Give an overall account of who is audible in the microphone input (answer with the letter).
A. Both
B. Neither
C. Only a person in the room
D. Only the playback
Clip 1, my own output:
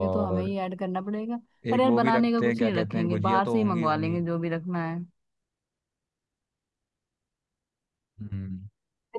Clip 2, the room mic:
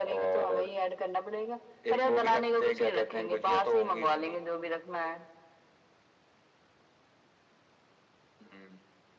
D